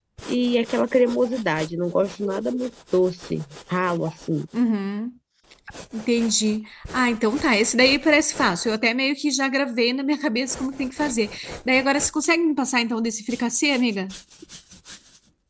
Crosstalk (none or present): none